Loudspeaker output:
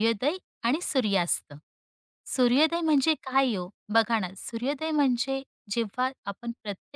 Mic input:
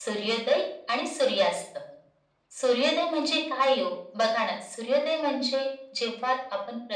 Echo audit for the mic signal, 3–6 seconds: echo only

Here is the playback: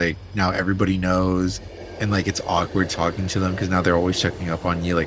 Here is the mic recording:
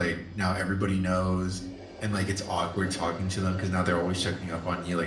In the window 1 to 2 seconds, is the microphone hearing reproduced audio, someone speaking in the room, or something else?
echo only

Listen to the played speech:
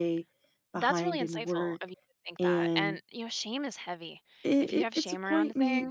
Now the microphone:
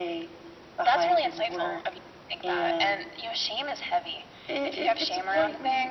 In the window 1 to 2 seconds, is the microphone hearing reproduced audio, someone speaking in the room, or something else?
echo only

